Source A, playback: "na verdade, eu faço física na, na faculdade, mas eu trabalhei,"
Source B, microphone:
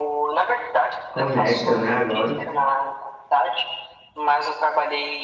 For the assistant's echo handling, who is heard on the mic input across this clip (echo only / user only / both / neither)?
both